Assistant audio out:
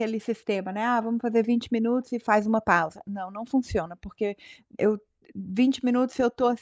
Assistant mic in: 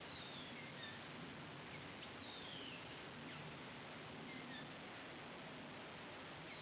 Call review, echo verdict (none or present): none